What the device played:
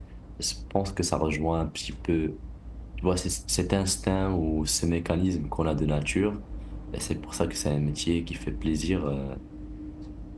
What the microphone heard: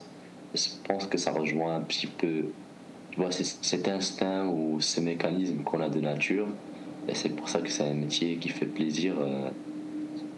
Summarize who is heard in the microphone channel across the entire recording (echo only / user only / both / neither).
echo only